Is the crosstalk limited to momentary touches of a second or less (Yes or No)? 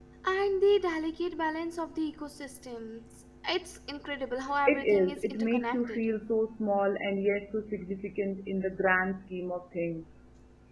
No